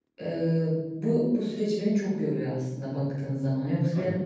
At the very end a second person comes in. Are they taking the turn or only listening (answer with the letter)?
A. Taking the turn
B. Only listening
A